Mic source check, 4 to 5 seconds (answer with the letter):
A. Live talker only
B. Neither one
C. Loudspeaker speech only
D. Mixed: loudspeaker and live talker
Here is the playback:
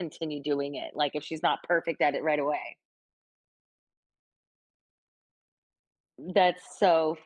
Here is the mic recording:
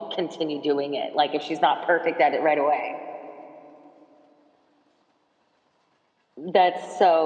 B